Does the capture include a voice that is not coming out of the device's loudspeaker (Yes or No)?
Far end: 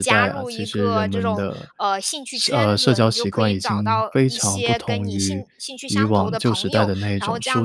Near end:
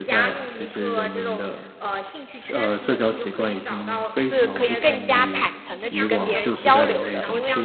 Yes